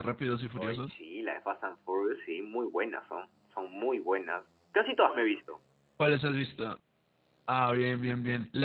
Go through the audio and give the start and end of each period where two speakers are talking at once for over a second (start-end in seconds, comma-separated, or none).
none